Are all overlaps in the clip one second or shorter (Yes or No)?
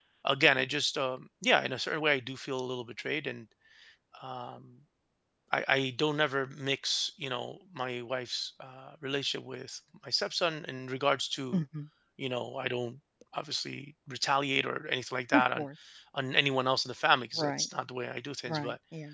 Yes